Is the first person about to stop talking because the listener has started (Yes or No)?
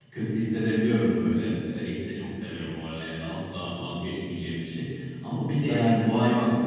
No